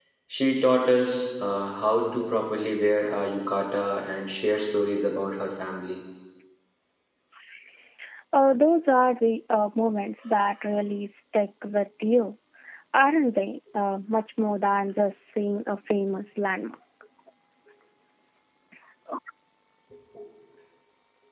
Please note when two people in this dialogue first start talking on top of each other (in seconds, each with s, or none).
none